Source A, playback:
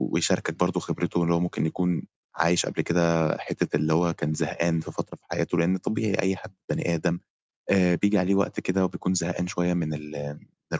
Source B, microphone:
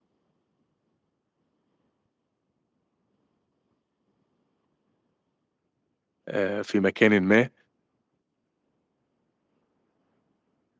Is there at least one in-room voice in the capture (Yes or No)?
Yes